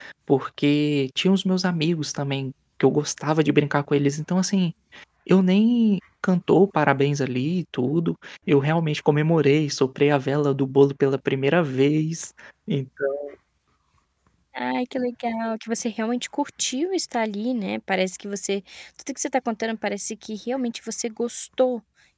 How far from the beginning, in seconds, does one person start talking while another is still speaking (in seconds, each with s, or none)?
none